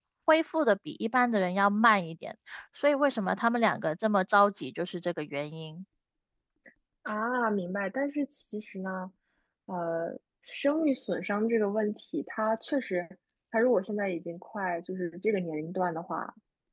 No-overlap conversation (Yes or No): Yes